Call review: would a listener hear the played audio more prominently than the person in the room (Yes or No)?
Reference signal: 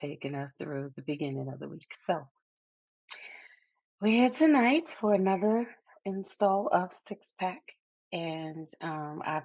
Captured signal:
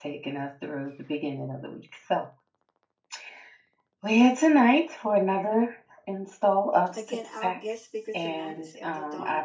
Yes